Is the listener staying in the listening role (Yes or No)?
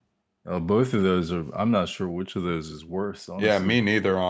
No